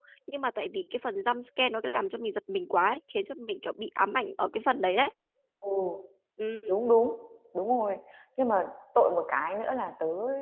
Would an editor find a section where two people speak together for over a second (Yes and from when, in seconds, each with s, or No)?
No